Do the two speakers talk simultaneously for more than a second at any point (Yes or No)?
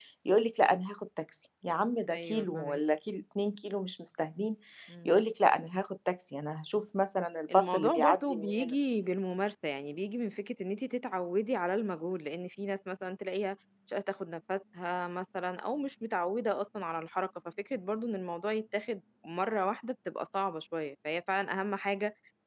Yes